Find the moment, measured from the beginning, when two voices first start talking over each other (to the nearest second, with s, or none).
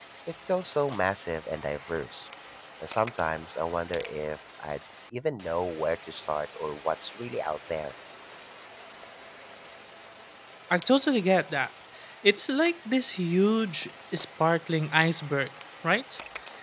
none